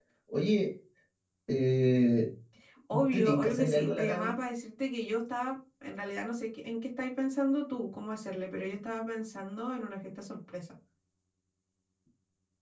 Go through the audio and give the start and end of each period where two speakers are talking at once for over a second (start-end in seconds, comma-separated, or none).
3.1-4.4